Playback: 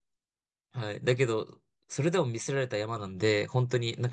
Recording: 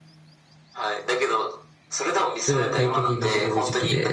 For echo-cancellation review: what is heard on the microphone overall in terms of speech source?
both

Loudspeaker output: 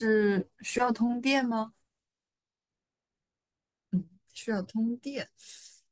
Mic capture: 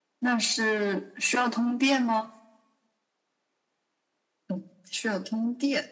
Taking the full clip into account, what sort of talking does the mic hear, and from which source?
echo only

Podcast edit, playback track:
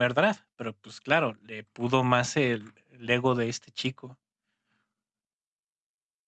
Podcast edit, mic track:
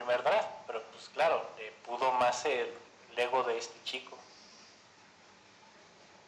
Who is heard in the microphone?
echo only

